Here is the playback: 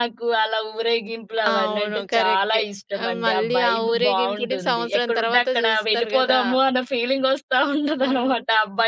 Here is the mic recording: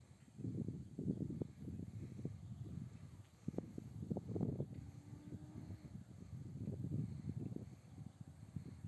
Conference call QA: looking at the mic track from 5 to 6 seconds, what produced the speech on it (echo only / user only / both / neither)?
neither